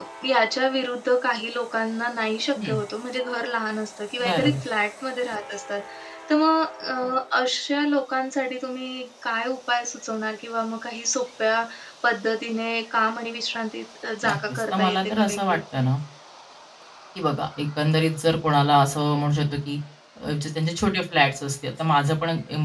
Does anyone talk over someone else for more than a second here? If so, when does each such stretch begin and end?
14.2-15.6

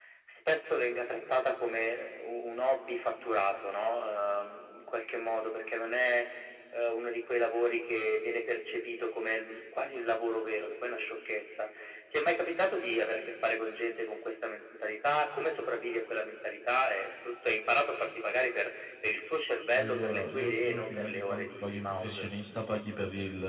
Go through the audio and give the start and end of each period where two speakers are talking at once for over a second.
19.7-22.3

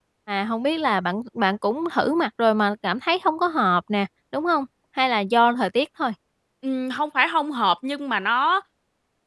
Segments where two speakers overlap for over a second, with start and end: none

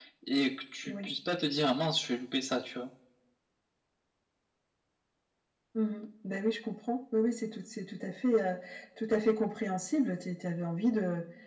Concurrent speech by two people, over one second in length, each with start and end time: none

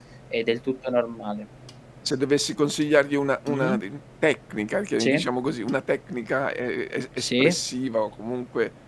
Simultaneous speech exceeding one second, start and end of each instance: none

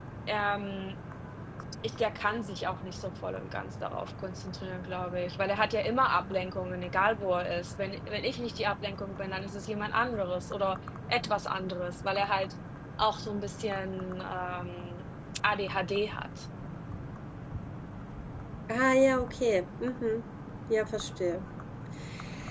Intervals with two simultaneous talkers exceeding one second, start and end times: none

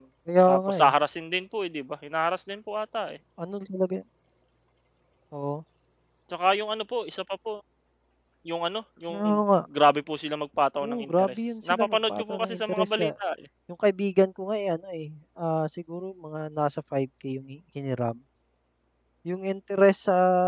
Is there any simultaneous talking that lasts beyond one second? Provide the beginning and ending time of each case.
10.8-13.1

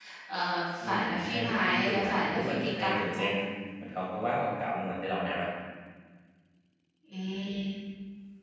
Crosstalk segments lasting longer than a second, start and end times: 0.8-3.3

